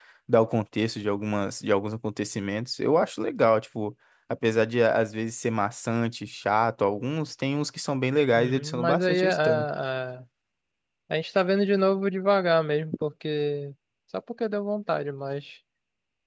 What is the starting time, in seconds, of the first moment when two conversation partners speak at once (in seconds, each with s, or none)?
8.3 s